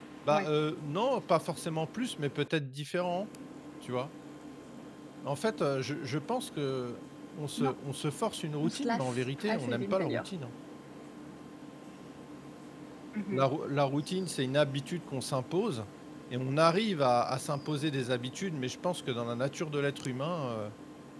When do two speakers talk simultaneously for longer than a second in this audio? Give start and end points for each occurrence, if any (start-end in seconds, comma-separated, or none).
8.6-10.3